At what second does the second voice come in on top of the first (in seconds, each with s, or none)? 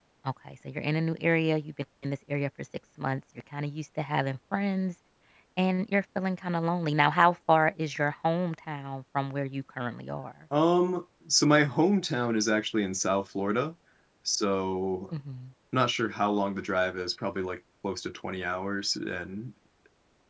none